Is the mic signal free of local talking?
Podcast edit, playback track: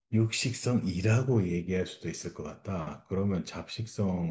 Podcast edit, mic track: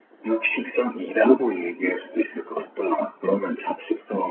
Yes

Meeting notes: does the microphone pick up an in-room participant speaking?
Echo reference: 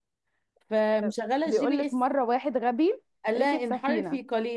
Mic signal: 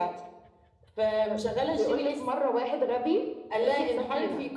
No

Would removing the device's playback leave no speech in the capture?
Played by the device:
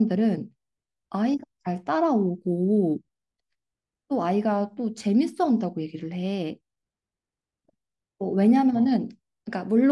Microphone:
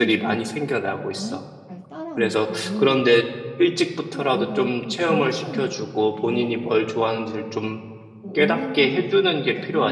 No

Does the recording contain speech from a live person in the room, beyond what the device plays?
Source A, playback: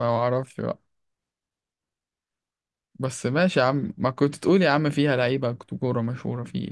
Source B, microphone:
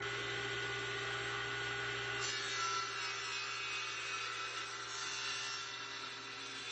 No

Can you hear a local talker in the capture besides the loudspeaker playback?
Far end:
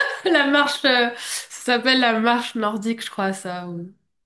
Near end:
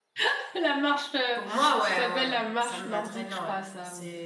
Yes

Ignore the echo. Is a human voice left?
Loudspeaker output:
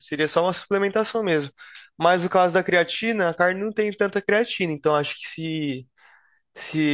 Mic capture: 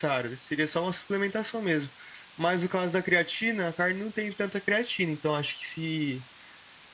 No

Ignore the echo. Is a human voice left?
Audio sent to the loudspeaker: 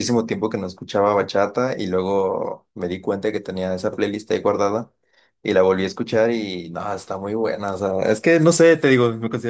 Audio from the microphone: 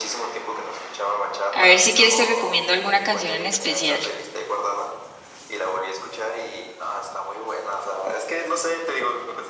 Yes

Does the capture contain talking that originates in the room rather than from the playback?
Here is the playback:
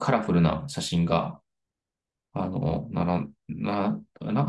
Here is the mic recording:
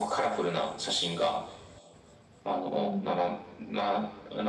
Yes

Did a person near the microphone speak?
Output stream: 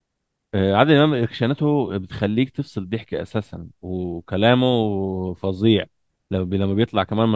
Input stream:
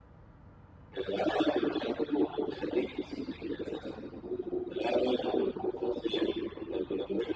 No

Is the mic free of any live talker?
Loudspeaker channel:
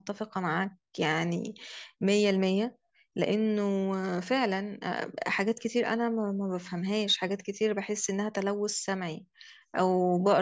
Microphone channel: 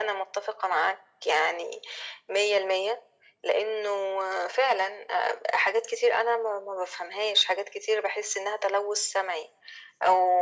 Yes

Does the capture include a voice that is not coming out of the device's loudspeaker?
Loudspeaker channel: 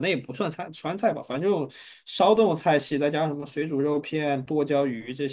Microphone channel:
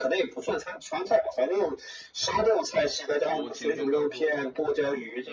Yes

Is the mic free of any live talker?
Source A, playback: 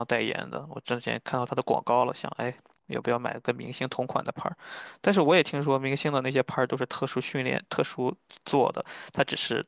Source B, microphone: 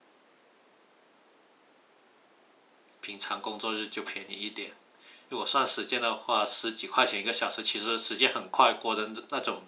No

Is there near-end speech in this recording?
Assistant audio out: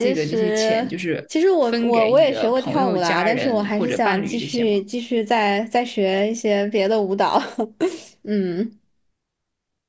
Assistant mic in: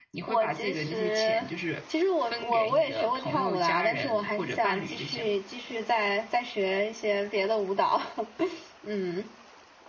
No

